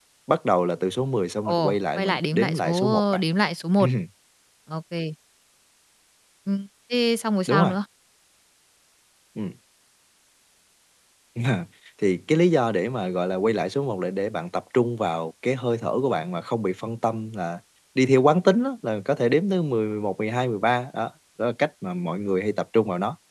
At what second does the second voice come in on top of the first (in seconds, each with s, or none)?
1.4 s